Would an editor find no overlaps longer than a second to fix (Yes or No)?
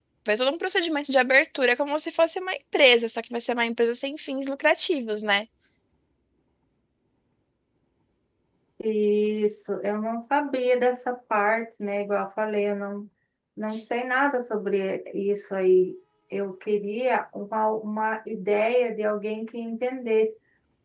Yes